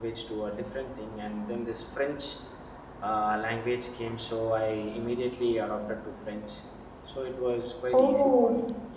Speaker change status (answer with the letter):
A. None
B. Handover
B